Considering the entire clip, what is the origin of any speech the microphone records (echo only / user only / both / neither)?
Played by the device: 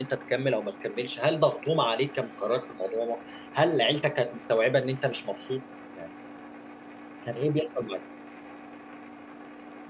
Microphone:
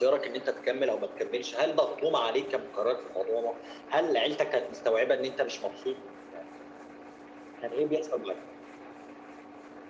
echo only